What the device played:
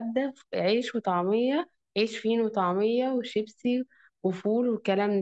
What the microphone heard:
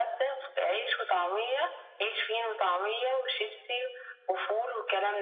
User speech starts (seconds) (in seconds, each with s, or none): none